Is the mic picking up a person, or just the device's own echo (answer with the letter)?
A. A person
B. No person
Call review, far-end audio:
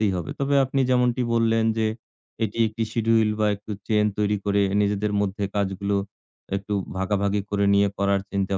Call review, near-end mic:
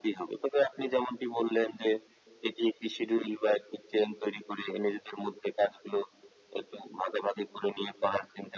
B